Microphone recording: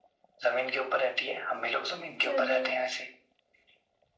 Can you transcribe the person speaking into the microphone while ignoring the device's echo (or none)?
चलो